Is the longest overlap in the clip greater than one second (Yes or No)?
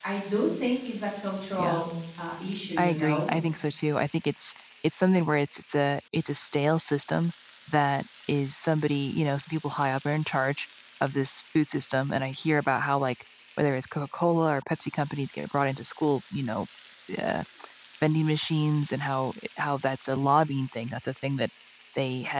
No